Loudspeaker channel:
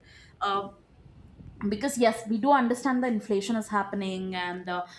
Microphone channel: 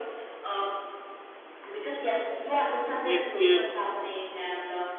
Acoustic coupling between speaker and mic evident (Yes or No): Yes